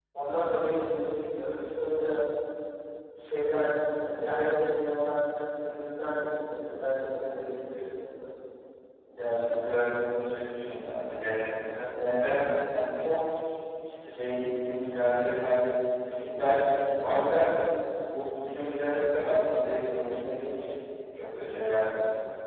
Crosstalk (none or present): none